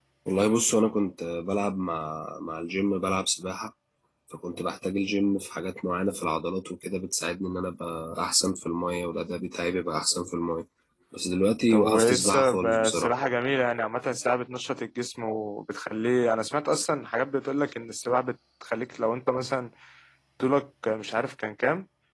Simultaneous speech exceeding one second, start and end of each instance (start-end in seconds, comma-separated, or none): 11.7-13.1